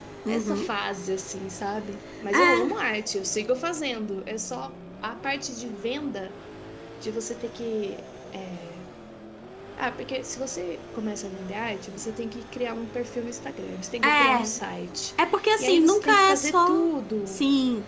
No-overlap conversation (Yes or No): No